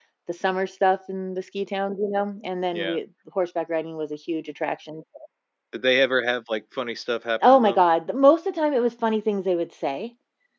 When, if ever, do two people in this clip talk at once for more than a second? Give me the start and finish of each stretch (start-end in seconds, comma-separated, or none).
none